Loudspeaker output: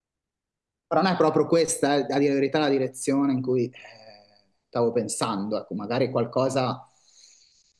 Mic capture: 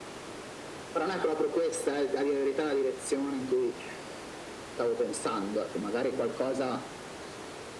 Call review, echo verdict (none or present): present